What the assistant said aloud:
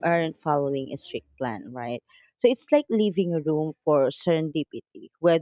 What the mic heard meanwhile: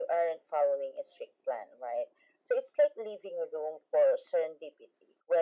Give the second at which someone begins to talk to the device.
none

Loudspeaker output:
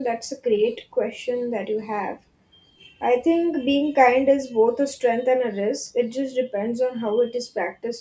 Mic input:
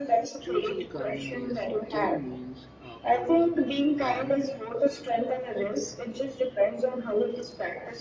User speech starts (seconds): 0 s

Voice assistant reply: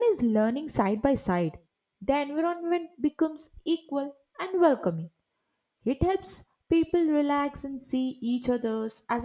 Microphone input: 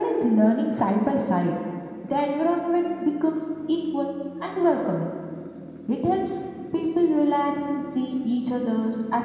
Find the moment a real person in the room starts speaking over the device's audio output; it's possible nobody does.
none

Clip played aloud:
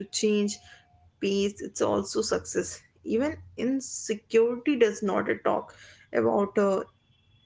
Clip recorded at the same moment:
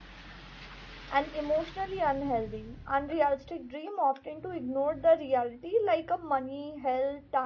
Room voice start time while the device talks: 1 s

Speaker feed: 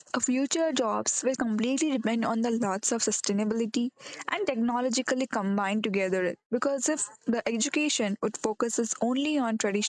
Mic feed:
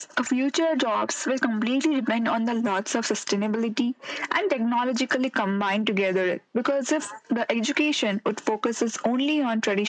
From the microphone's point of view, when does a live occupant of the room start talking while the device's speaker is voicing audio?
none

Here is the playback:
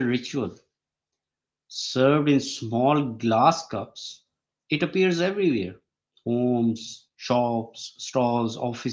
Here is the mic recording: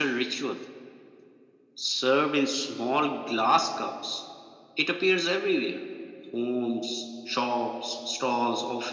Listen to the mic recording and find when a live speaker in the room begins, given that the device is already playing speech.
none

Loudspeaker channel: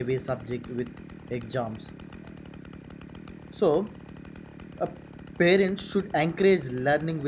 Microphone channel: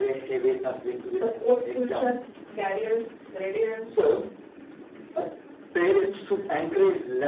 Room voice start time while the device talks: 1 s

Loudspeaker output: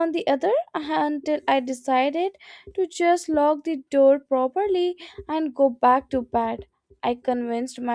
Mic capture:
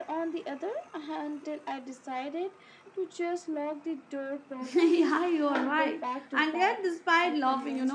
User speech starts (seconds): 5 s

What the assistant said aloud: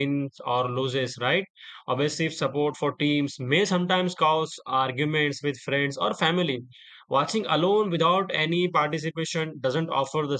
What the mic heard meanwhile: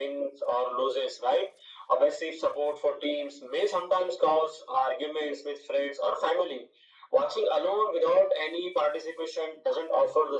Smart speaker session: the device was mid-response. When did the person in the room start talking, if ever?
none

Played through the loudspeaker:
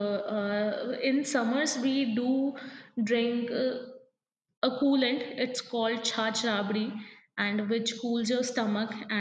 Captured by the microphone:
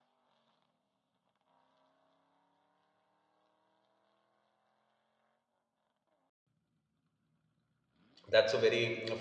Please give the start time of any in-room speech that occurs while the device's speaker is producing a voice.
8 s

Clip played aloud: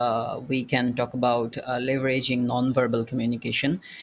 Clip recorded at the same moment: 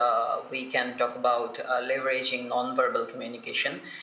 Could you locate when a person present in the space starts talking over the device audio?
none

